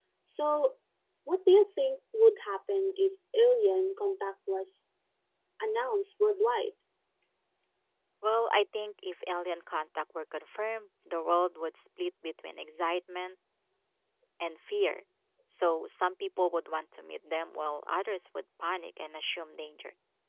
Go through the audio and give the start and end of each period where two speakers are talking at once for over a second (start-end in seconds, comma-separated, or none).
none